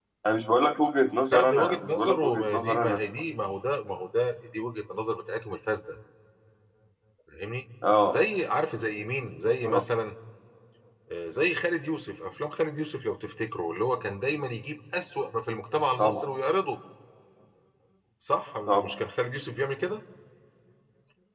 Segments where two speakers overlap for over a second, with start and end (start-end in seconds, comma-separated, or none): 1.3-3.0